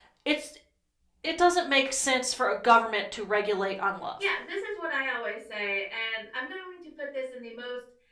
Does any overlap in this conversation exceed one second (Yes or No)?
No